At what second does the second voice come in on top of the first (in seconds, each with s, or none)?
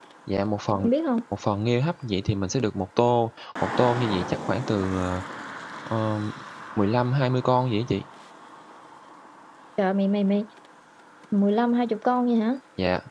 none